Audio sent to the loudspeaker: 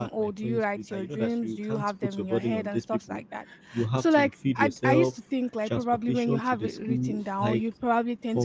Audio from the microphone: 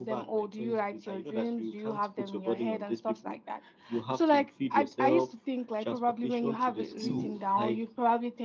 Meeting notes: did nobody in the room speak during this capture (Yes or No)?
No